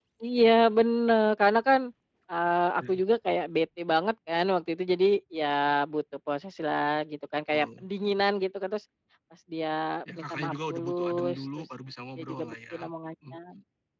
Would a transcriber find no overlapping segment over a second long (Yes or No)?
No